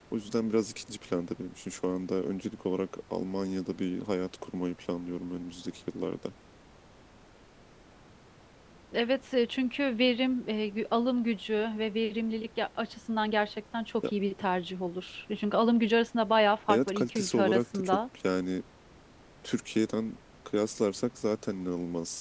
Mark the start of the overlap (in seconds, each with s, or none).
16.7 s